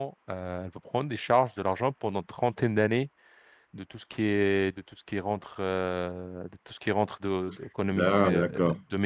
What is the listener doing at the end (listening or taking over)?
listening